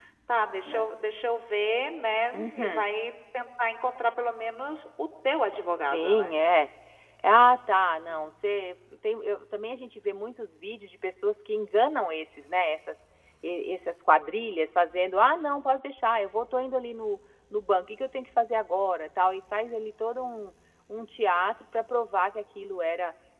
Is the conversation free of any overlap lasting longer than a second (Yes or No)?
Yes